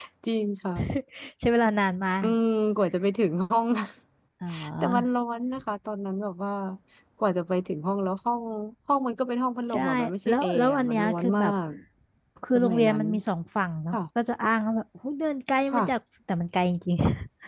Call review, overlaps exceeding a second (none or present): present